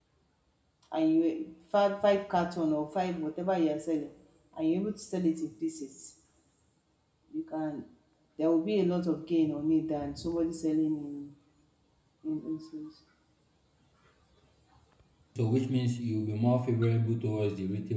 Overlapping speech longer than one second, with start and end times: none

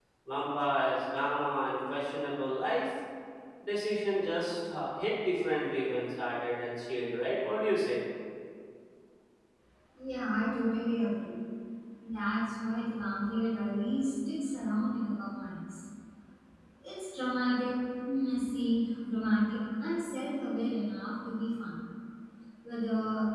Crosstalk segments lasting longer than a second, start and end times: none

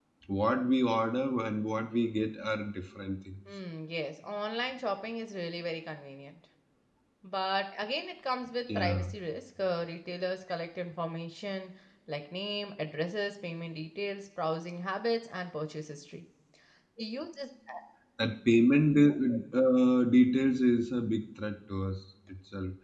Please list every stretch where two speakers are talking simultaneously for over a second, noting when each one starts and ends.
none

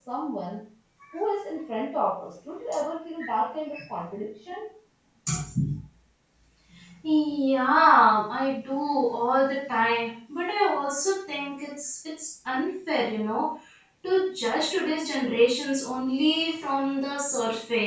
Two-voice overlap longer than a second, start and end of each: none

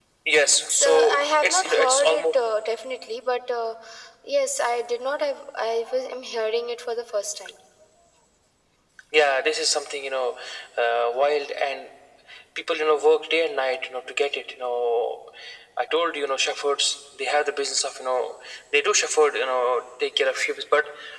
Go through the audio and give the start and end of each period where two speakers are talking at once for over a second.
0.7-2.2

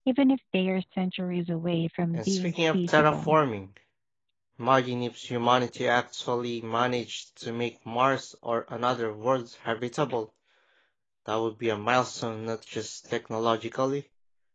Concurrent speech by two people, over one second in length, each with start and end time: 2.1-3.4

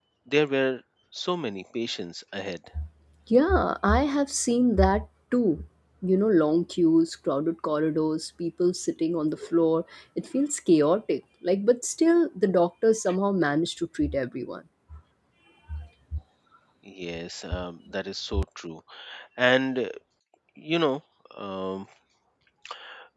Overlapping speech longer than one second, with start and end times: none

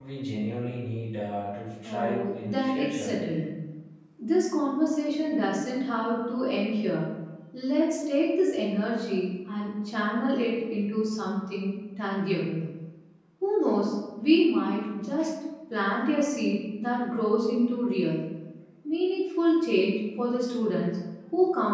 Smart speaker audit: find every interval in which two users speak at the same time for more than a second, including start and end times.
1.9-3.2

